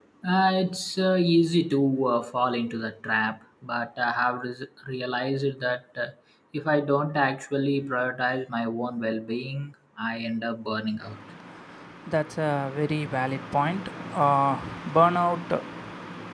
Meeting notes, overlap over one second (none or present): none